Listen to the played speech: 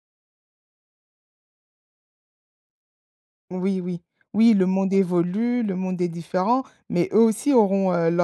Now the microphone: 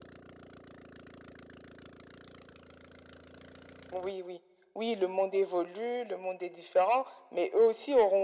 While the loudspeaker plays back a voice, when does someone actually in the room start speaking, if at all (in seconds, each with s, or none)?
none